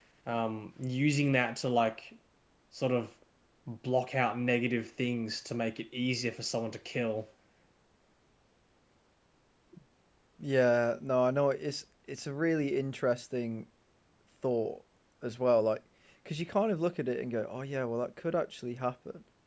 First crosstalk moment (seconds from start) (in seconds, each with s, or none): none